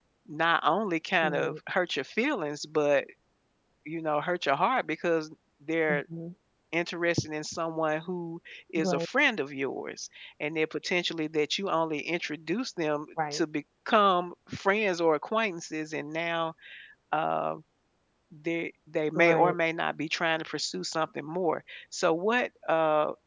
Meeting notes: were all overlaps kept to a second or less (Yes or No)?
Yes